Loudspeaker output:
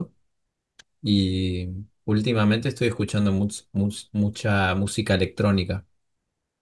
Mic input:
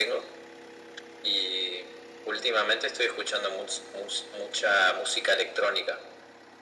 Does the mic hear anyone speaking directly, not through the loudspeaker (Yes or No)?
No